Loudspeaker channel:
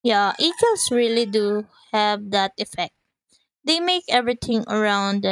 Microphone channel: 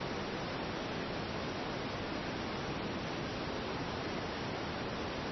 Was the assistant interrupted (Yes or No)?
No